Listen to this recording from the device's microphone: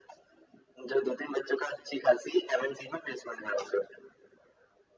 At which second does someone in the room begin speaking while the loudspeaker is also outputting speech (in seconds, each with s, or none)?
none